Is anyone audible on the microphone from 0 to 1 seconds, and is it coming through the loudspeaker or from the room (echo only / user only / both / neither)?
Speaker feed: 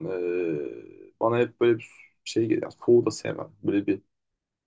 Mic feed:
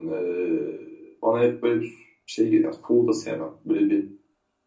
echo only